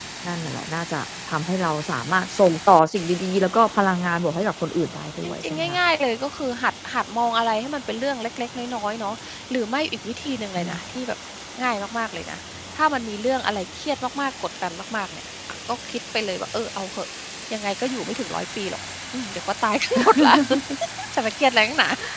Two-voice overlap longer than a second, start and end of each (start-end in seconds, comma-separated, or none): none